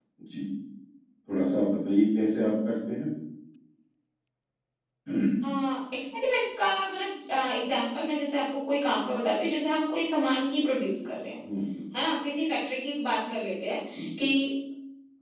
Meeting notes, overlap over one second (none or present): none